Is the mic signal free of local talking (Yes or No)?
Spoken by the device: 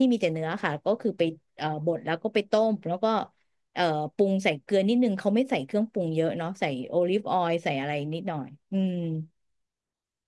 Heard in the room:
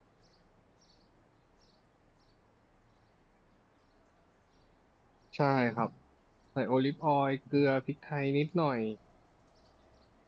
No